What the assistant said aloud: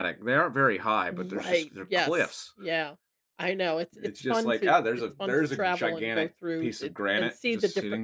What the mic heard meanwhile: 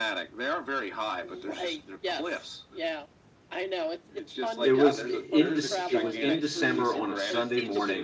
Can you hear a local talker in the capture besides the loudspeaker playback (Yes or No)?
Yes